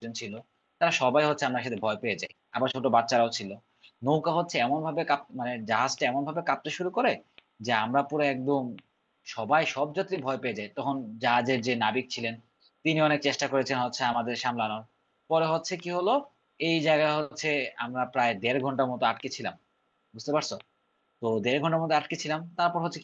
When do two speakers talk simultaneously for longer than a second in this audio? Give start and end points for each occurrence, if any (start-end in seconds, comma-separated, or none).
none